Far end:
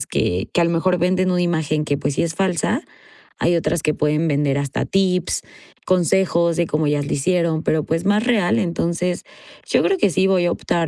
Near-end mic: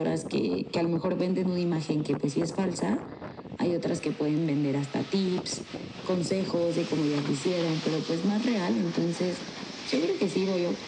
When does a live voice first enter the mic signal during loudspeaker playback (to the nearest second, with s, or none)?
none